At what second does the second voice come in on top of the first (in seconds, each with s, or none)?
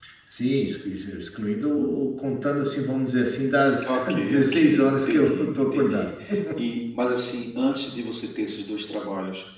3.8 s